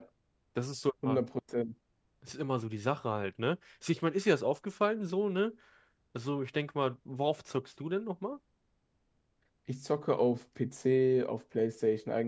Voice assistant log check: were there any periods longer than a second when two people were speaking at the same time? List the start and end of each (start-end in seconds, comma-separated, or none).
none